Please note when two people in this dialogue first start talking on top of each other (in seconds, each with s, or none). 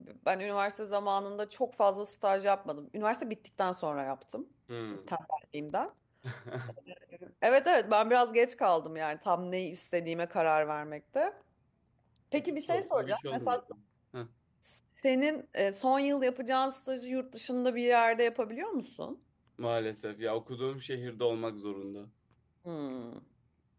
12.3 s